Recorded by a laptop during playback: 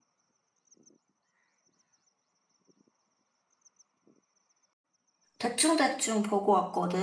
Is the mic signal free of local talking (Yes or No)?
No